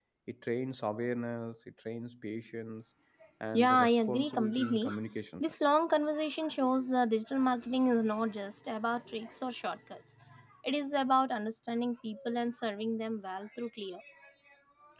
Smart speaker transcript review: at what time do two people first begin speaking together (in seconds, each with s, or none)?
3.6 s